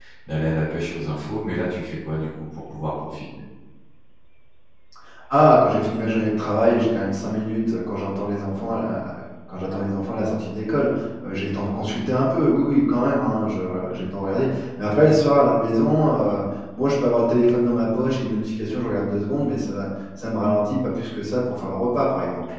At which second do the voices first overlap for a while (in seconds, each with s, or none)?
none